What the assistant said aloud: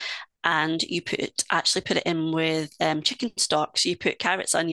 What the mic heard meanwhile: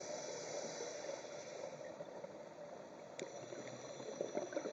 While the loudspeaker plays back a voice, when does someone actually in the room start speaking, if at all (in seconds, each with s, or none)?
none